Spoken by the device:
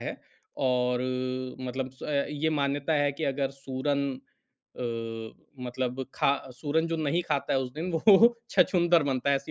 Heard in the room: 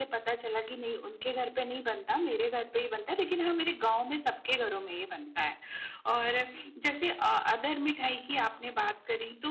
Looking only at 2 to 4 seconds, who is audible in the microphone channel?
user only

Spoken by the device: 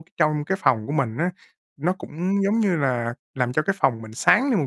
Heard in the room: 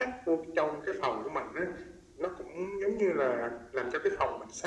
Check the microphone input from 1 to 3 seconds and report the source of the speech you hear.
echo only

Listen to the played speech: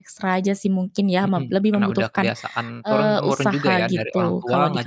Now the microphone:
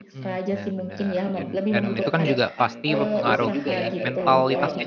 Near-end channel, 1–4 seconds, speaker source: both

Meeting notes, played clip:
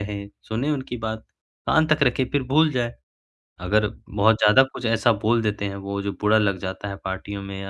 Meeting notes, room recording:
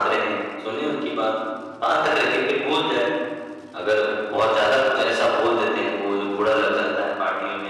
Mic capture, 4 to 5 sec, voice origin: echo only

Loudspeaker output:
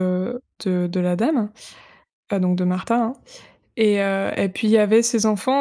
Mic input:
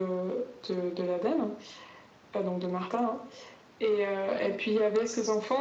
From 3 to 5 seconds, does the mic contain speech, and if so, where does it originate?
both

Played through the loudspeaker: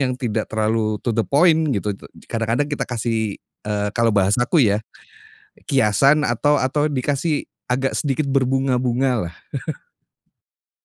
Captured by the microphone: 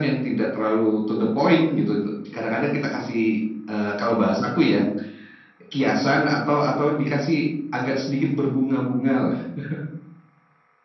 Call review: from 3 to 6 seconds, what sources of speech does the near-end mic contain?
echo only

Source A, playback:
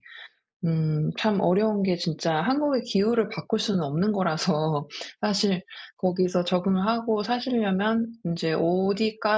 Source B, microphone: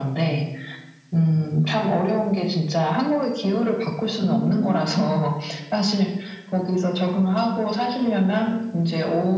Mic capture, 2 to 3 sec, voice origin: echo only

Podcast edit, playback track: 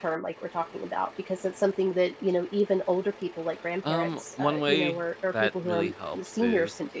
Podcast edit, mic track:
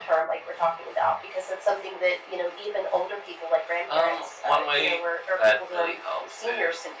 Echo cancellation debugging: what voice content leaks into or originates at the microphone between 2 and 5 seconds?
echo only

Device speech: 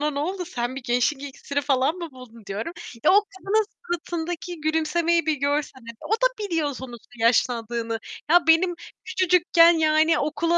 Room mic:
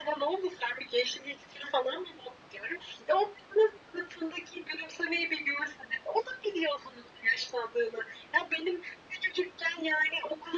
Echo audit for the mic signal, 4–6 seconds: echo only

